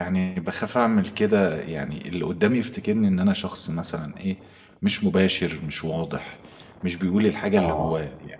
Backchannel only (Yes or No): Yes